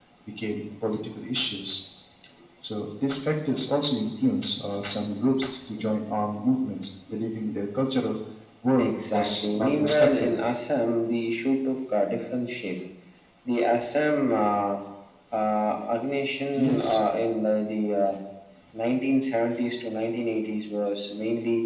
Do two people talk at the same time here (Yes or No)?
Yes